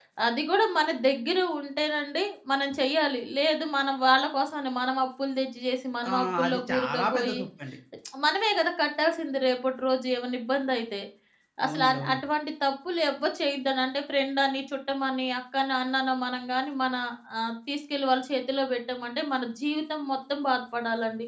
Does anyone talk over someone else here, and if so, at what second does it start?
6.1 s

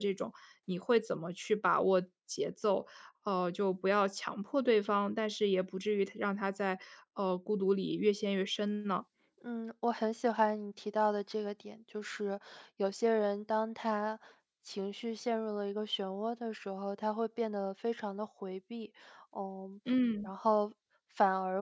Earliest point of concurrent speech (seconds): none

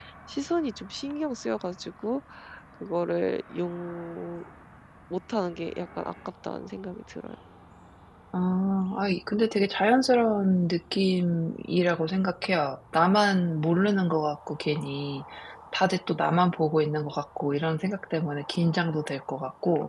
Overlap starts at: none

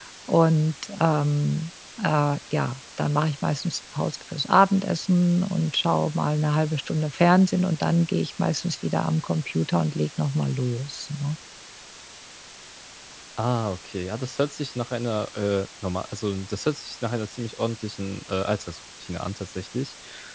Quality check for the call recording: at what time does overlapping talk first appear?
none

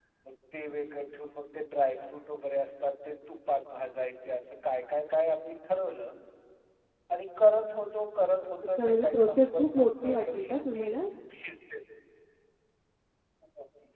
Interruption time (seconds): 8.8 s

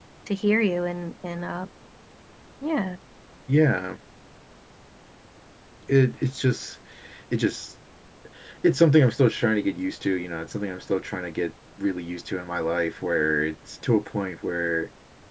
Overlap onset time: none

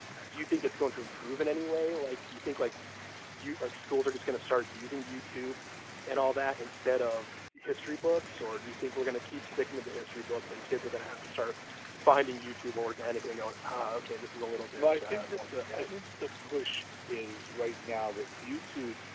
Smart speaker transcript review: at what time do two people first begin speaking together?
14.8 s

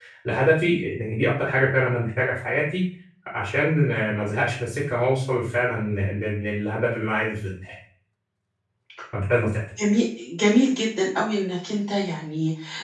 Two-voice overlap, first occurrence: none

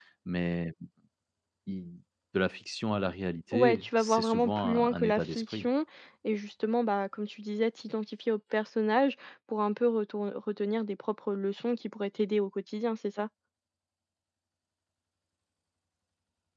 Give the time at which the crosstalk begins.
3.5 s

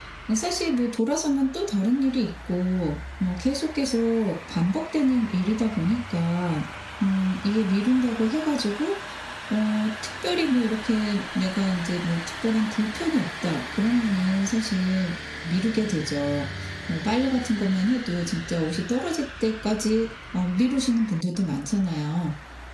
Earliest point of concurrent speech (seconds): none

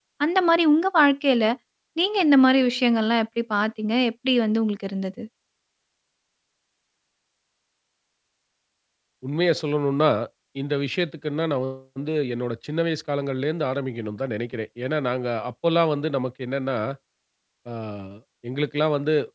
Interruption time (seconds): none

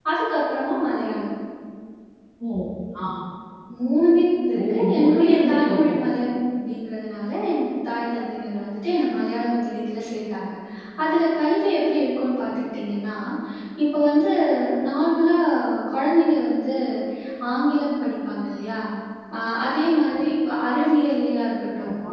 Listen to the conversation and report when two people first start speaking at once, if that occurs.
4.6 s

